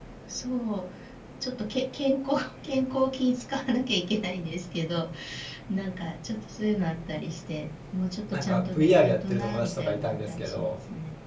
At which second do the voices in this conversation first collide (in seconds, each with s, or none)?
8.3 s